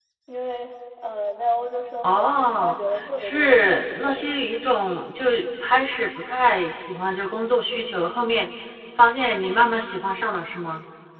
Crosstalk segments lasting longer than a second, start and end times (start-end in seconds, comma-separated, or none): 2.0-4.2